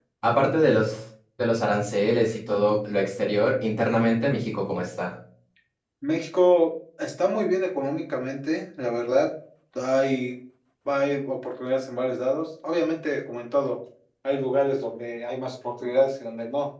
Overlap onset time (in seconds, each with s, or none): none